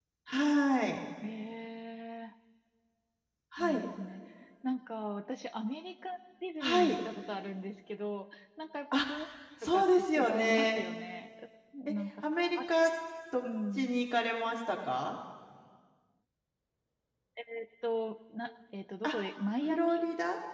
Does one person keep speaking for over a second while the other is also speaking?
Yes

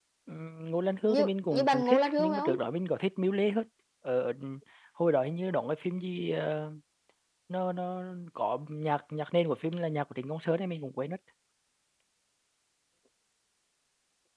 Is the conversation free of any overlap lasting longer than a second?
No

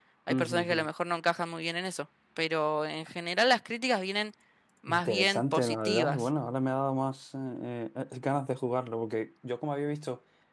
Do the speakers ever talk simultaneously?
Yes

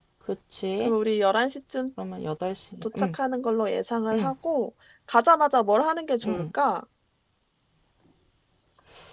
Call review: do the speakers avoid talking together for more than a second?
Yes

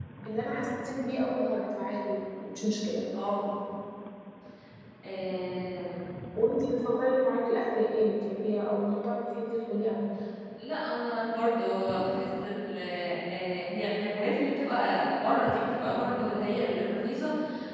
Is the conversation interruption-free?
Yes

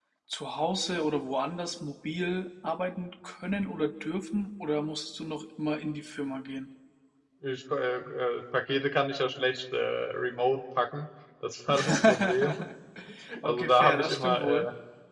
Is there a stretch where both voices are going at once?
Yes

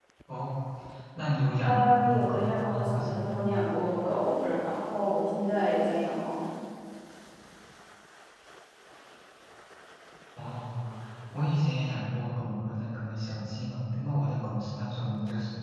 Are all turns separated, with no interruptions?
No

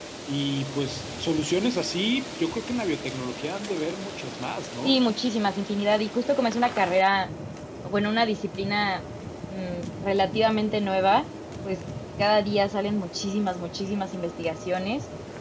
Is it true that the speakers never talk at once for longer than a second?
Yes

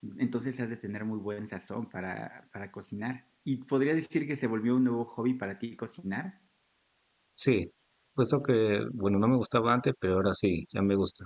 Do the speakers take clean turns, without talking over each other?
Yes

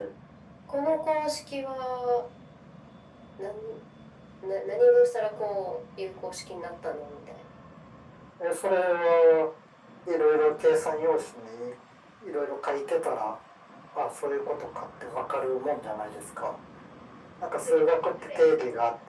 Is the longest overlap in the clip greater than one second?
No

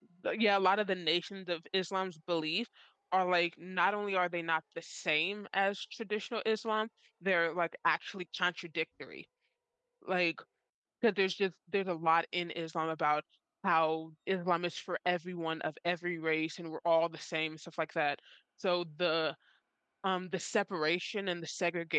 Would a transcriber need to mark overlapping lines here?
No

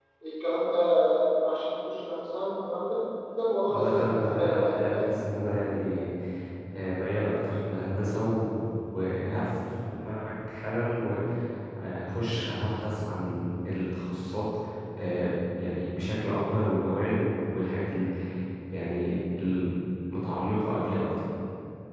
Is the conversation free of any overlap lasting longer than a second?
No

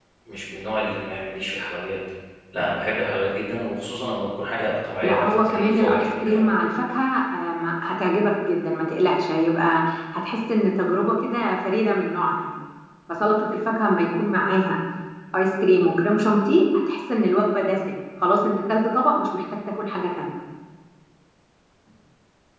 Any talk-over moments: Yes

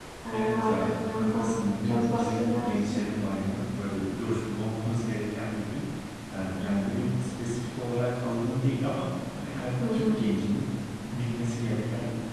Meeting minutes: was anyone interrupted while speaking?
Yes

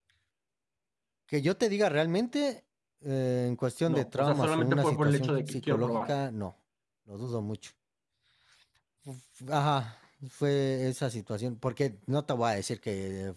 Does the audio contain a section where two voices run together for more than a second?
Yes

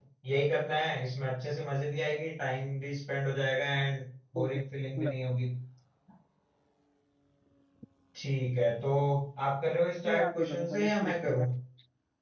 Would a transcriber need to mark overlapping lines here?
Yes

